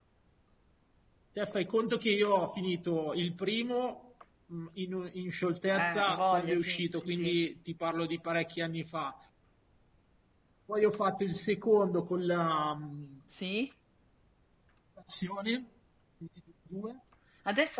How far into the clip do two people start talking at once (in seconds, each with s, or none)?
5.7 s